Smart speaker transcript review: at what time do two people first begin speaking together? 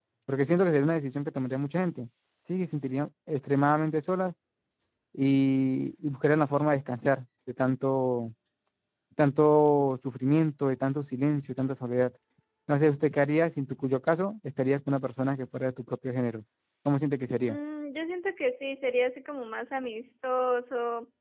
none

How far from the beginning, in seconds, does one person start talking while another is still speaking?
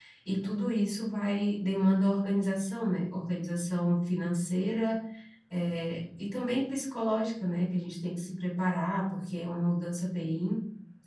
none

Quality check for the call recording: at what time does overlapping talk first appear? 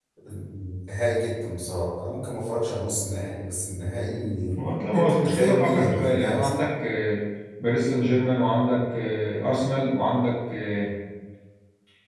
5 s

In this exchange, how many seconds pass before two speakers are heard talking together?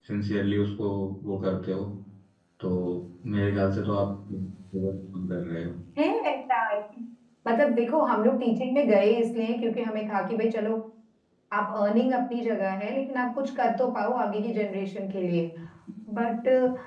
none

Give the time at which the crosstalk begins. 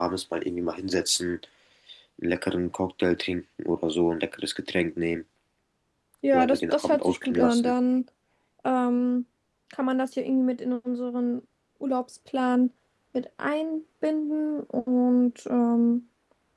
6 s

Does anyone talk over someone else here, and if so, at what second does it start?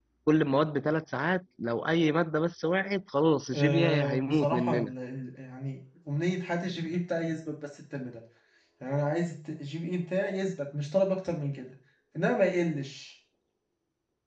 4 s

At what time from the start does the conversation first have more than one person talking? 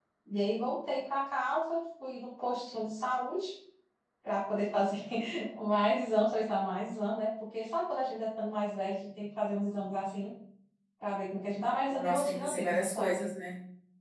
12 s

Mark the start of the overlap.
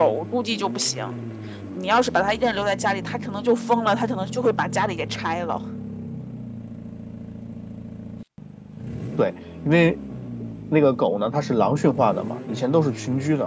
none

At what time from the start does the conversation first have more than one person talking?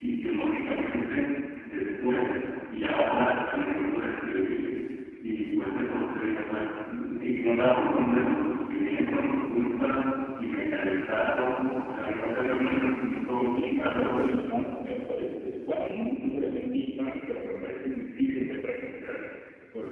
13 s

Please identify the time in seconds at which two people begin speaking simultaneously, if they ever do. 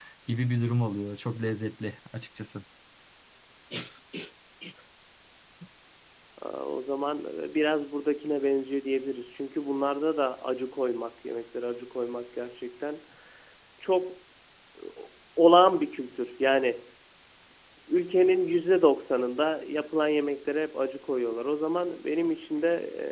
none

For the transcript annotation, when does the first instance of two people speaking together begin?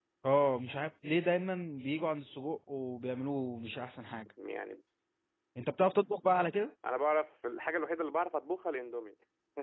none

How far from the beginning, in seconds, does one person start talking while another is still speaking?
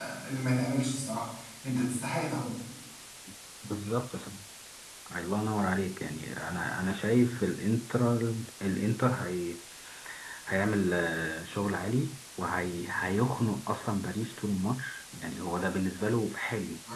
none

